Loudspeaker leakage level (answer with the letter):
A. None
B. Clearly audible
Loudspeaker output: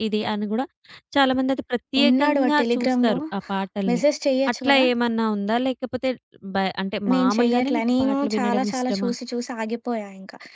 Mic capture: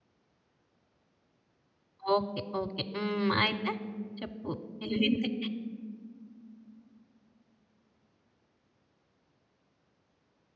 A